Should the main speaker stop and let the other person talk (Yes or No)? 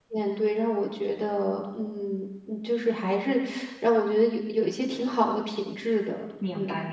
Yes